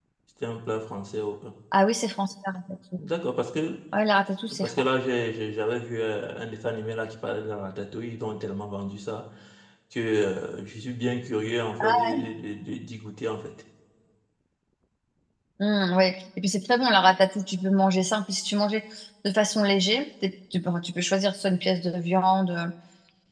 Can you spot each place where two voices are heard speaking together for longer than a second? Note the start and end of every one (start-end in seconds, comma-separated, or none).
none